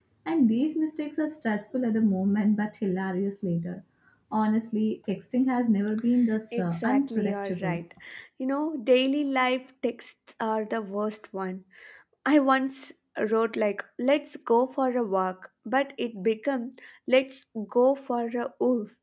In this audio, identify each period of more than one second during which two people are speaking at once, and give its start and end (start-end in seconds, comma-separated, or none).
6.6-7.8